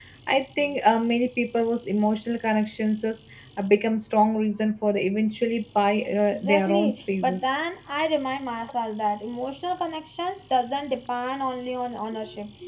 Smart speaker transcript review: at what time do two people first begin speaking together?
6 s

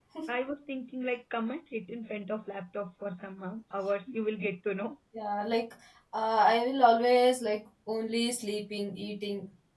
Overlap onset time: none

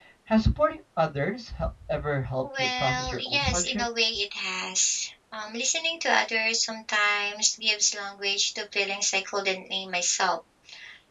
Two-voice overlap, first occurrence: 2 s

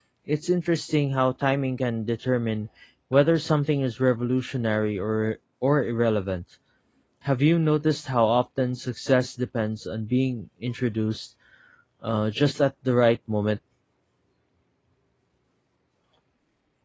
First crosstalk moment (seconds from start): none

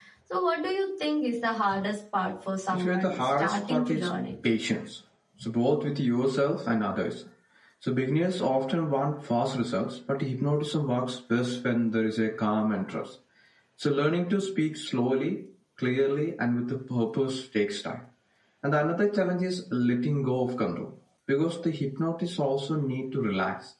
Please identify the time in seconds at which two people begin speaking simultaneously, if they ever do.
3 s

